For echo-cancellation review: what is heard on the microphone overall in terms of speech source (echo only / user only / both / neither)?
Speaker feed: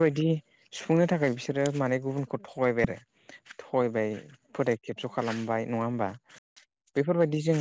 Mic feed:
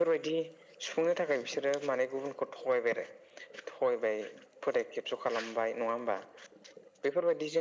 echo only